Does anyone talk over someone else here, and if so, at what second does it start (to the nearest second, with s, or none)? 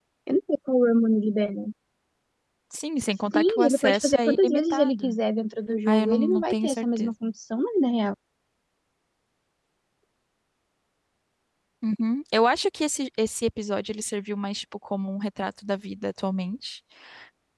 3 s